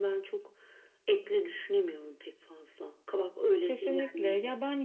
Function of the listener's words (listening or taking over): taking over